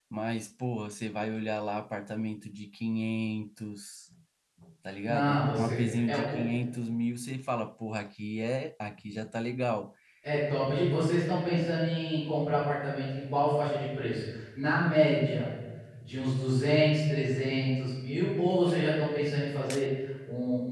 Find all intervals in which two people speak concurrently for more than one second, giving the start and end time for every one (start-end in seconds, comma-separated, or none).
5.1-6.4